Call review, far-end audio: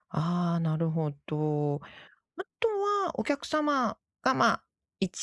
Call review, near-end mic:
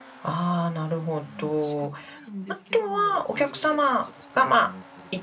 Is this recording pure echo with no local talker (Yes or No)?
No